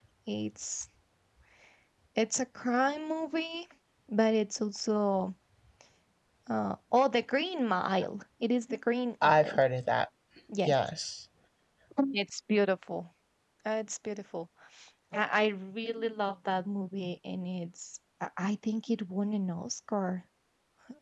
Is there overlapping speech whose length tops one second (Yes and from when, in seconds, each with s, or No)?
No